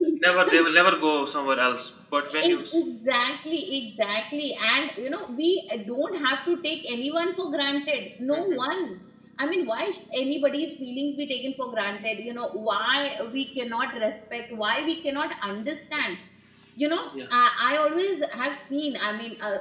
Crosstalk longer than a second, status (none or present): none